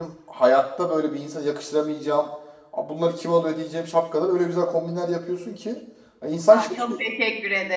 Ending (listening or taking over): taking over